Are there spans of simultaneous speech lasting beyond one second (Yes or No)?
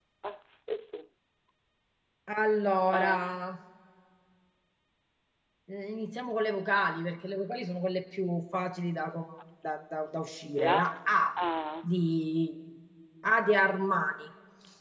No